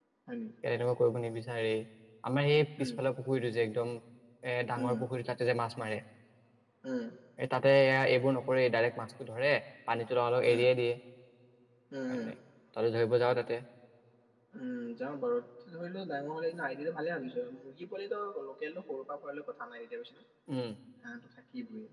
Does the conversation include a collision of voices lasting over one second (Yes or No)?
No